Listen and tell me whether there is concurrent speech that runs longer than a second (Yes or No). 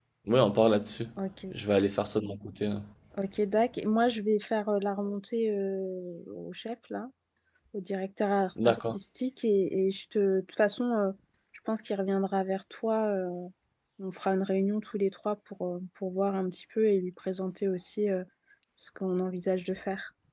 No